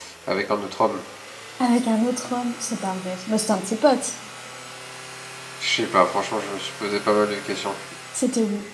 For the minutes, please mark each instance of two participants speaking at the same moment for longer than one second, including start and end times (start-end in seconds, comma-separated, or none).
none